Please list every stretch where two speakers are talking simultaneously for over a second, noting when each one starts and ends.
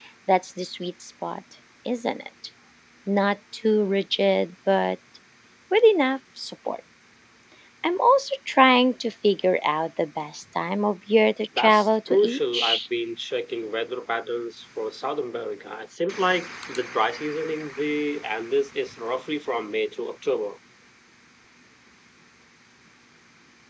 11.6-12.8

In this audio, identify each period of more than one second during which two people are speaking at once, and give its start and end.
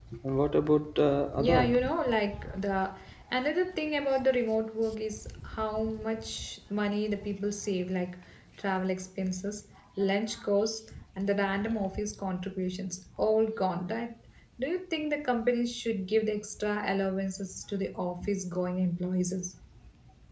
none

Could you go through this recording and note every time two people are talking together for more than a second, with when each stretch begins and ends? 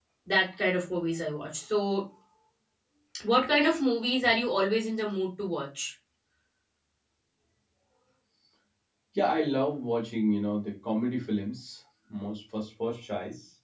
none

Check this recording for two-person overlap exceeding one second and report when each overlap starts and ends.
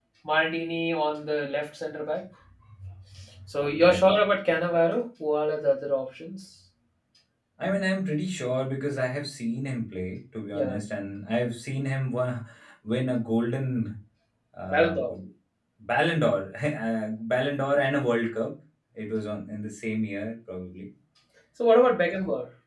none

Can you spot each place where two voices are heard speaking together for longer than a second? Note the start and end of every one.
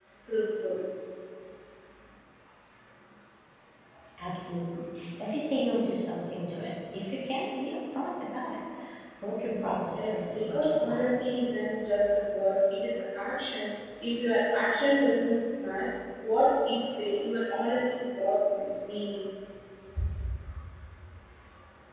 10.0-11.3

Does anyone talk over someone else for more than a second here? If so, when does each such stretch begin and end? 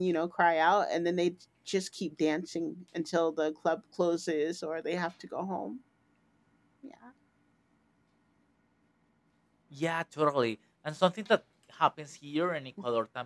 none

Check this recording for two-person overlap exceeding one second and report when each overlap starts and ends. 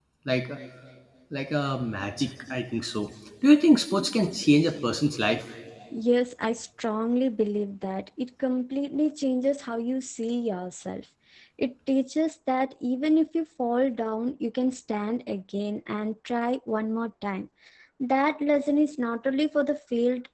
none

